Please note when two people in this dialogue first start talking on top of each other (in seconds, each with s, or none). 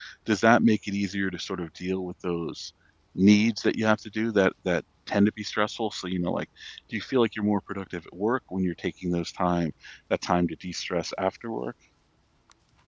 none